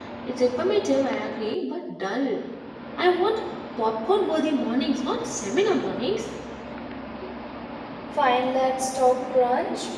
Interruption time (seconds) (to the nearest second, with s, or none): none